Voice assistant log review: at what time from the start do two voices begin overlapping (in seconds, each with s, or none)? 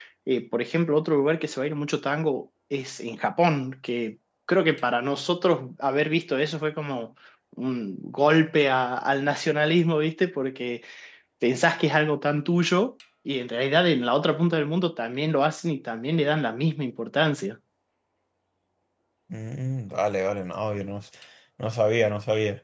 none